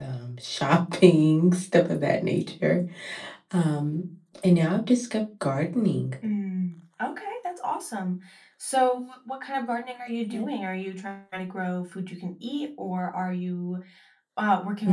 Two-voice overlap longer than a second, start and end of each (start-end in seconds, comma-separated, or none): none